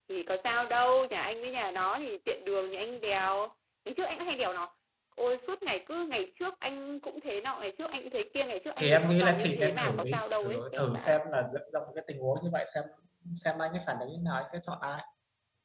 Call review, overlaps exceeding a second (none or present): present